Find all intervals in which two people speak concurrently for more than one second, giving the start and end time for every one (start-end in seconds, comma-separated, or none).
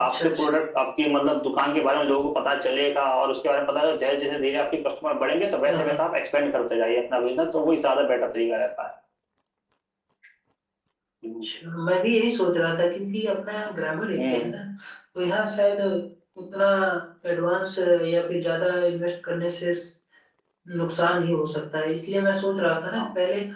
none